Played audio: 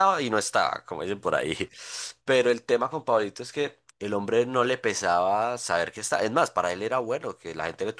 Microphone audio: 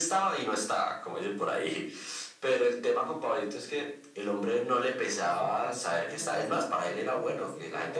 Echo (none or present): present